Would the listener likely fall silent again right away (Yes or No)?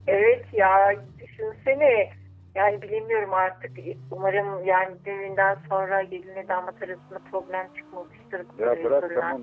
No